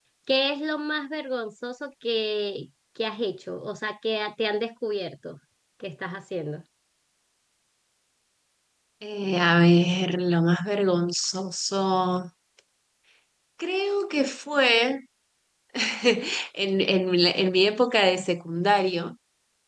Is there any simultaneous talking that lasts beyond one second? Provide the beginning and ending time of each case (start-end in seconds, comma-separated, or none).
none